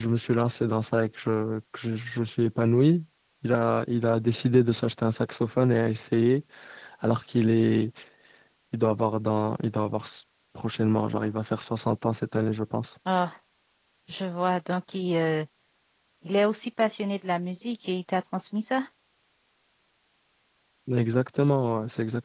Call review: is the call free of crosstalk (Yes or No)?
Yes